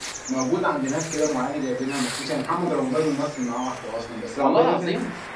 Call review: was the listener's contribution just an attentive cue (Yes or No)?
Yes